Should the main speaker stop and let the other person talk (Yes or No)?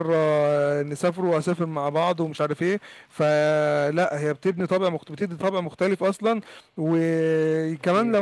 No